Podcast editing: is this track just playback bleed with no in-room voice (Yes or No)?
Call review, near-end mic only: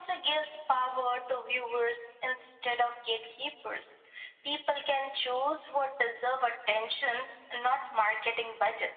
Yes